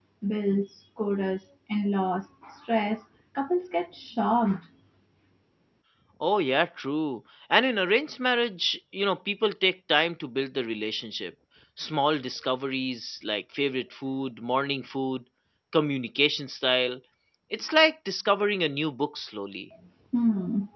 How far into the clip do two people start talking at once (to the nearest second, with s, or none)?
none